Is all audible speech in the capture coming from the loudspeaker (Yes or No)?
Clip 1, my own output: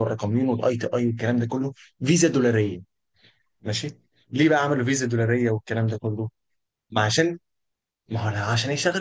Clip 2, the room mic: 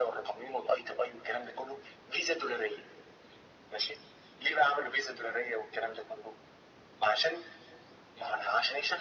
Yes